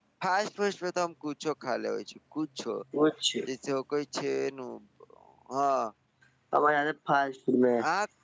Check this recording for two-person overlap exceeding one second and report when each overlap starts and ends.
none

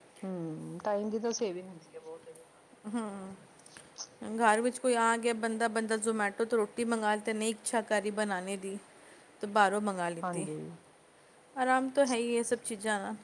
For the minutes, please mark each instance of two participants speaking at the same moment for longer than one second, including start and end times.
none

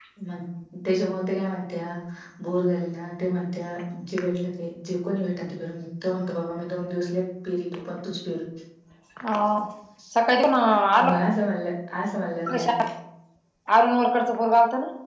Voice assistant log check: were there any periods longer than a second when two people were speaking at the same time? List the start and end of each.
none

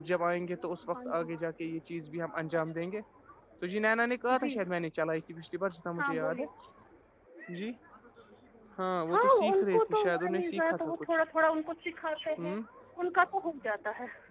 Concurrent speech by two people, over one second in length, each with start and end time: 9.1-11.1

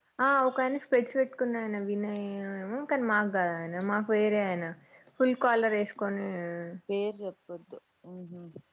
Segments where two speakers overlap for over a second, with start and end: none

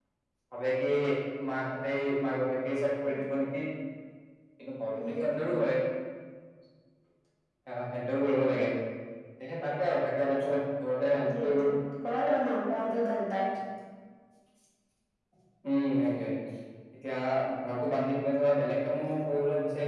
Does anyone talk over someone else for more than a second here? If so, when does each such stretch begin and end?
none

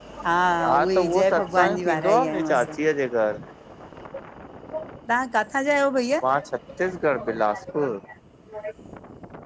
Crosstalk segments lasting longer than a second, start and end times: 0.7-2.7

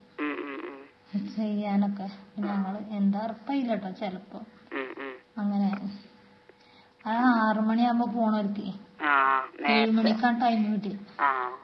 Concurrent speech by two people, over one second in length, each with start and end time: none

